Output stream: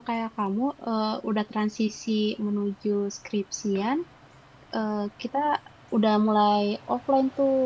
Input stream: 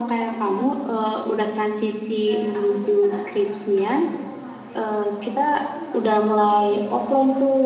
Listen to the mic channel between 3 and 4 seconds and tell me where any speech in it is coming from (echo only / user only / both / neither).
both